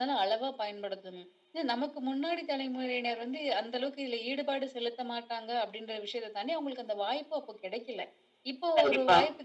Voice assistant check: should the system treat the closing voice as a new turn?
No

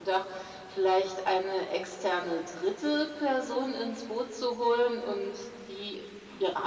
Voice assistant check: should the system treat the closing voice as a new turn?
No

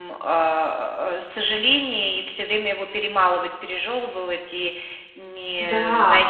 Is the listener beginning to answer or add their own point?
No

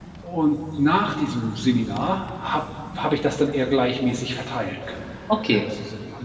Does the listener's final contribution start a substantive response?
Yes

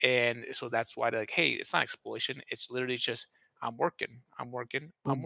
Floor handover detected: Yes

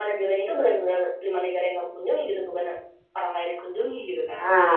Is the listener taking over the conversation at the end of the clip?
Yes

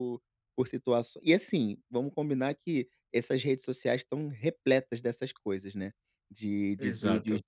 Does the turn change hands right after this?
No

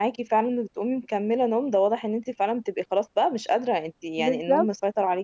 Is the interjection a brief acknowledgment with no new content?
Yes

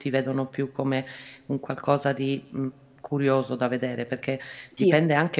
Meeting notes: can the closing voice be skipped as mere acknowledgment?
Yes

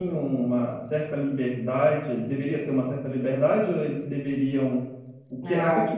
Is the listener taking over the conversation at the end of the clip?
No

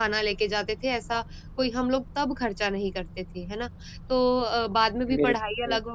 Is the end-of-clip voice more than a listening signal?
No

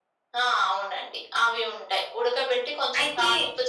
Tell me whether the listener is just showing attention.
Yes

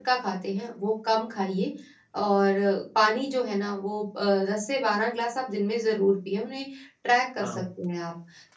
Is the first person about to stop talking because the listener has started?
No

